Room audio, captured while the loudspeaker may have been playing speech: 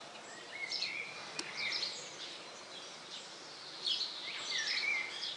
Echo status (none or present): none